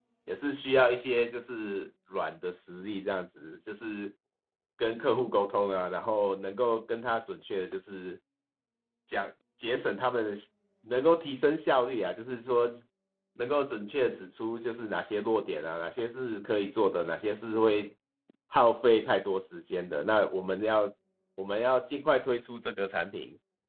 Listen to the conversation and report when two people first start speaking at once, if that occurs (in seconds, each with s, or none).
none